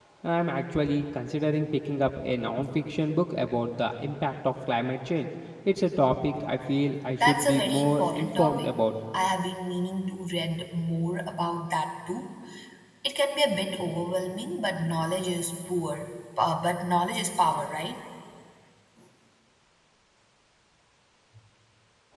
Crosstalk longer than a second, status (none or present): present